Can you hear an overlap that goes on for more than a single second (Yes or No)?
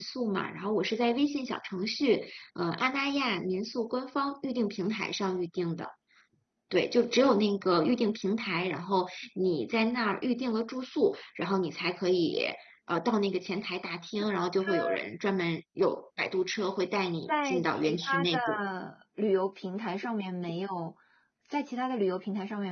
Yes